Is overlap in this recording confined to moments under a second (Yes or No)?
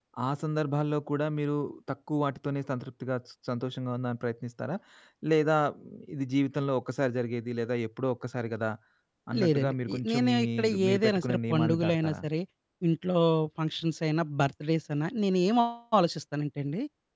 No